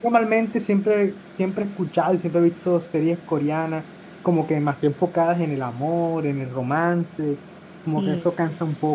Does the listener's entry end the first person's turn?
No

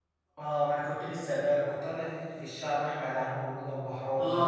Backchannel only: No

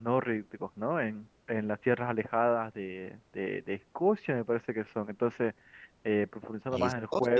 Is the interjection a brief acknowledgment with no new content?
Yes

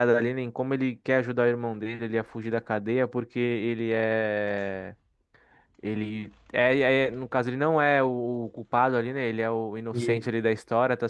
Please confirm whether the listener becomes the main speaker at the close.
No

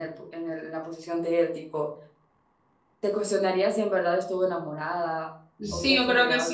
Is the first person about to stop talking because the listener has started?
Yes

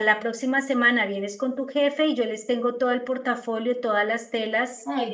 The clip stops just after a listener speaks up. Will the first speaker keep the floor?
Yes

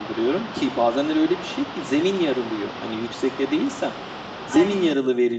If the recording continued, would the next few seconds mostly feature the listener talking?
No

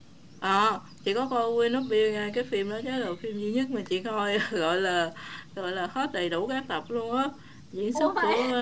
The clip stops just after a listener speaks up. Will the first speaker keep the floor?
Yes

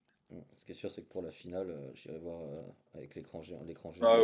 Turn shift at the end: Yes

